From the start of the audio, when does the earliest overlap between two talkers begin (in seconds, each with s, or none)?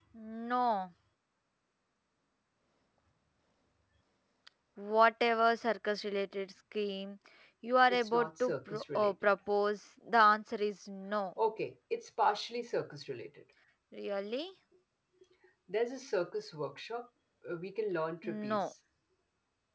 7.9 s